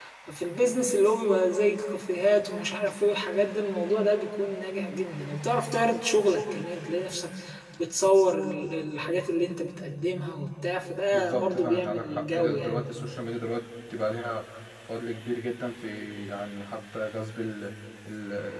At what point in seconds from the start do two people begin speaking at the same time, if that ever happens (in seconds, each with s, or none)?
11.1 s